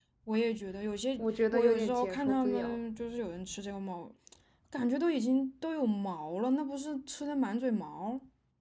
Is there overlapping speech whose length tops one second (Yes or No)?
Yes